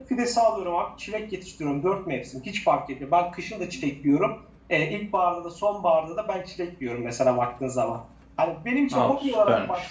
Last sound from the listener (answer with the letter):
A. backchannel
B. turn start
A